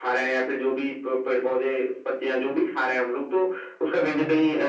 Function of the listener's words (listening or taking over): listening